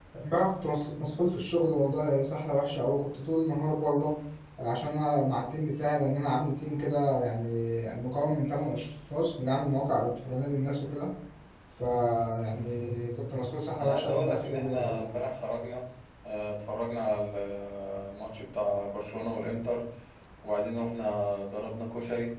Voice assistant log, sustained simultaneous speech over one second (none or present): present